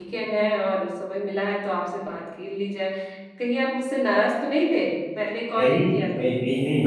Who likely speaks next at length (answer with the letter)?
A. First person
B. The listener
B